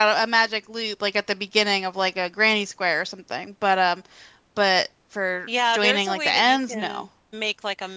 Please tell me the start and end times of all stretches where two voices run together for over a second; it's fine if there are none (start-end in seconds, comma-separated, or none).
5.7-7.0